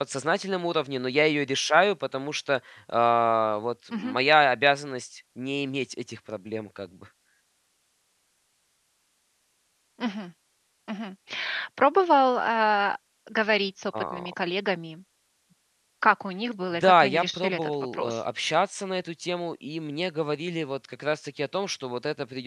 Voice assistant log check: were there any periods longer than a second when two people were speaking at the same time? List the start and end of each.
16.8-18.2

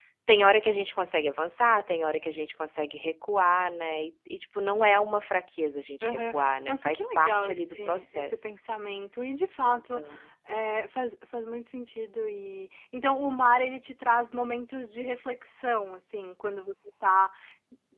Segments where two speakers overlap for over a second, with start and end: 6.0-8.6

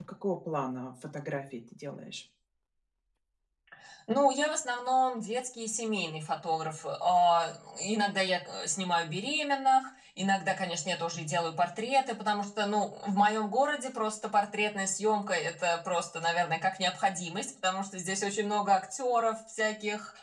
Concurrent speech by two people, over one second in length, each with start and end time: none

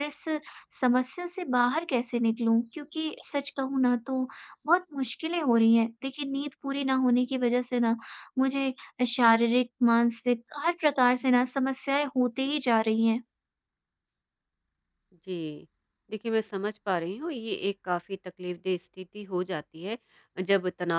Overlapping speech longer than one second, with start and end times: none

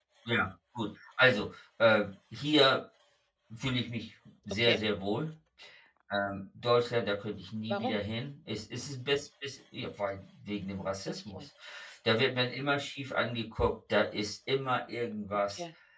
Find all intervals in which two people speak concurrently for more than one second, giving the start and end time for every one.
none

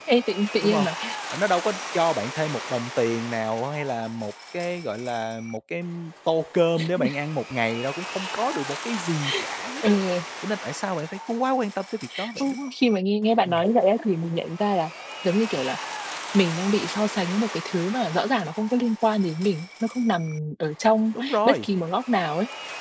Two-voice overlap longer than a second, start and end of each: none

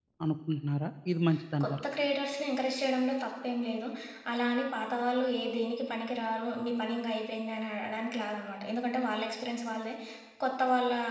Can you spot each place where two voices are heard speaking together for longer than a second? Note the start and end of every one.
none

